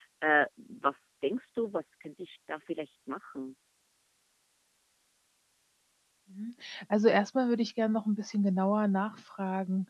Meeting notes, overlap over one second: none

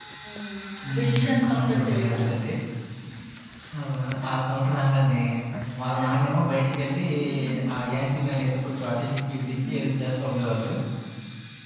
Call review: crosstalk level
present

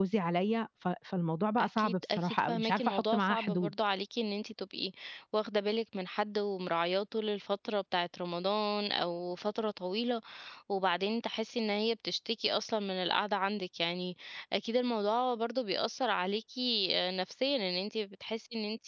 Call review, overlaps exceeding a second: present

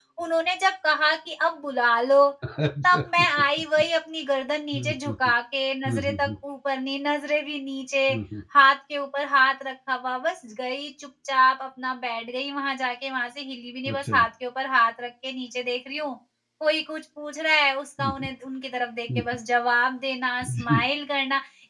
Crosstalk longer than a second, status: none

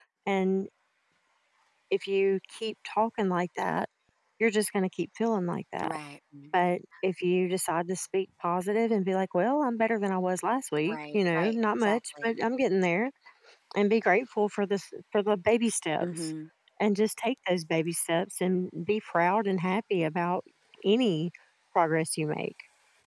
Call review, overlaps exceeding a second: present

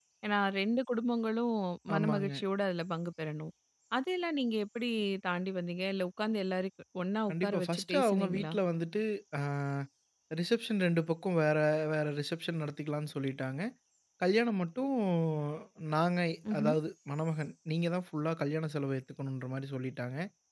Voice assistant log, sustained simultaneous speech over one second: present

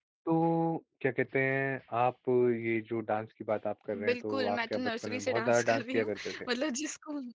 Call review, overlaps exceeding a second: present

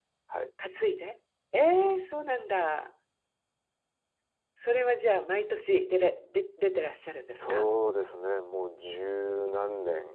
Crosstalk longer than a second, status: none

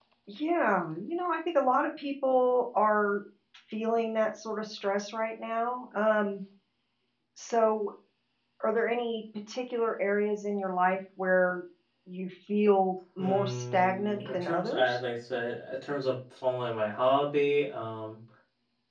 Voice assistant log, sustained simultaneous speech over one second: present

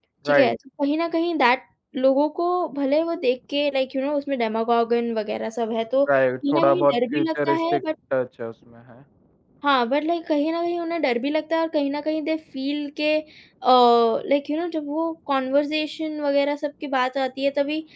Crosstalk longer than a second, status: present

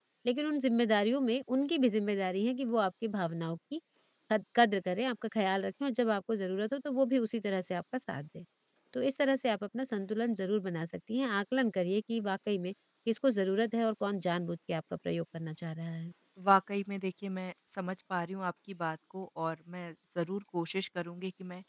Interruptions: none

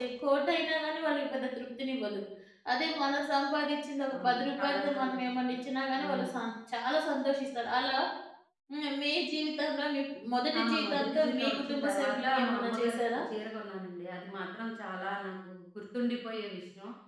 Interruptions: present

